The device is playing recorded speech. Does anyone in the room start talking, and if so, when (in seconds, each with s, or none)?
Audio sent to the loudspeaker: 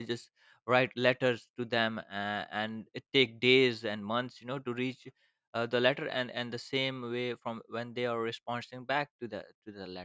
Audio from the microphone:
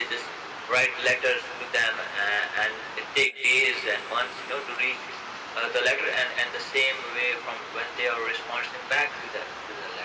none